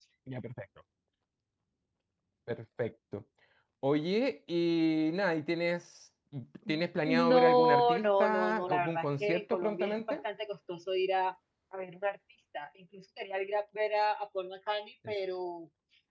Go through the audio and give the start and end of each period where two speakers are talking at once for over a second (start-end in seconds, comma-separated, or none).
7.1-10.2